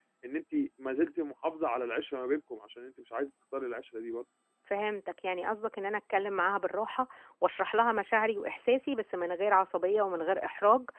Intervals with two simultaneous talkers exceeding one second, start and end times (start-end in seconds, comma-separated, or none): none